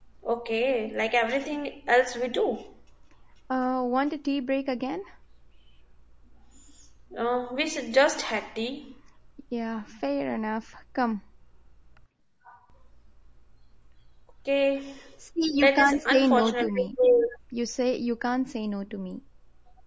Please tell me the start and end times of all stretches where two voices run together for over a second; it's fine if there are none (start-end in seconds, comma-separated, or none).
15.6-16.9